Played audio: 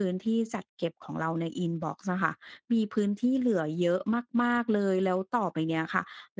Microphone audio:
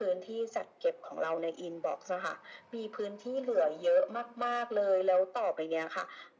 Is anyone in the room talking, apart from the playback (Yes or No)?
No